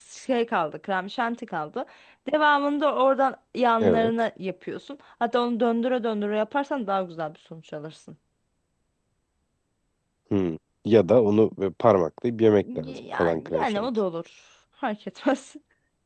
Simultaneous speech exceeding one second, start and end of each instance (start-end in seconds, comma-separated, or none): 12.6-13.9